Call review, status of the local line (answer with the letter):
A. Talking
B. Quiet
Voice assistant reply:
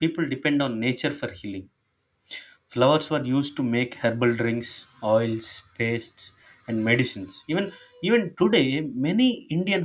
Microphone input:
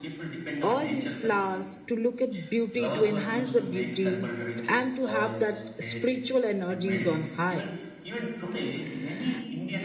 A